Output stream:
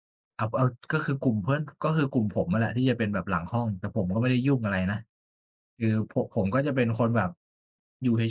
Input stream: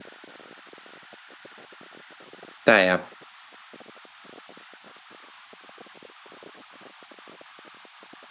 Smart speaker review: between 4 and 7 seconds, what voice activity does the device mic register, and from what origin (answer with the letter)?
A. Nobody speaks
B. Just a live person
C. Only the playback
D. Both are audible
A